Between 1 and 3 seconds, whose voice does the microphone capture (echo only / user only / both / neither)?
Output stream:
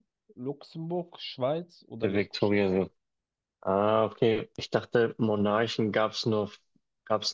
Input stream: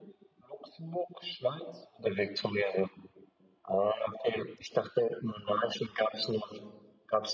echo only